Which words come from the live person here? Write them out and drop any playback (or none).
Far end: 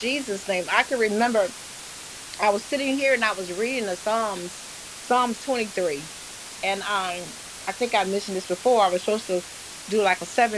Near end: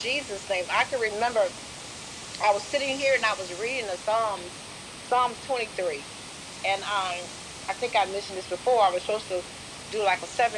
none